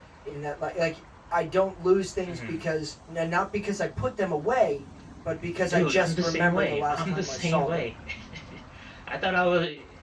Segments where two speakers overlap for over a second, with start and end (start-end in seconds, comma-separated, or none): 5.7-7.8